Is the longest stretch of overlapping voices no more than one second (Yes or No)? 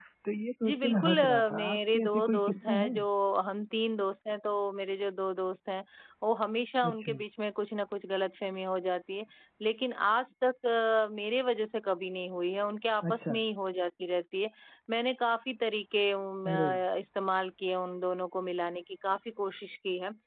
No